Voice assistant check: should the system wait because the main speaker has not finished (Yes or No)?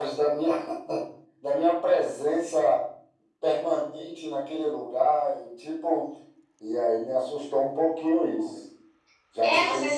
No